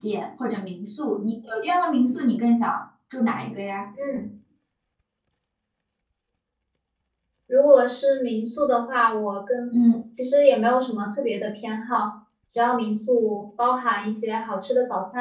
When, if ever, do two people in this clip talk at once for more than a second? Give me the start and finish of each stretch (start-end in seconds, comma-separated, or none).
none